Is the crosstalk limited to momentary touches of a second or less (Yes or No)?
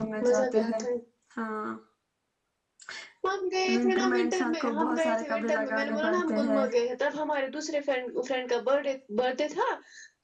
No